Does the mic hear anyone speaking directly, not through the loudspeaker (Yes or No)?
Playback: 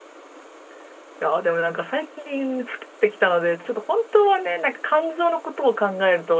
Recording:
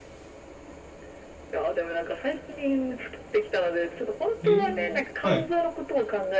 Yes